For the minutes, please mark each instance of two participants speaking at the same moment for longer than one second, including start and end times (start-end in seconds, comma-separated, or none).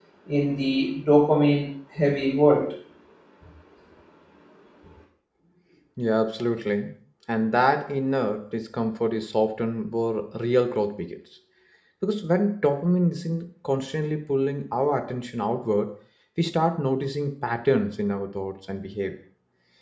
none